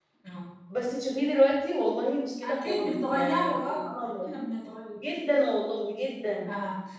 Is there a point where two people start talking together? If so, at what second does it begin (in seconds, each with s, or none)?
2.4 s